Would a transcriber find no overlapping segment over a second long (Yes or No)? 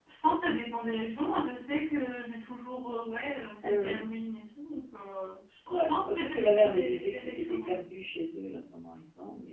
No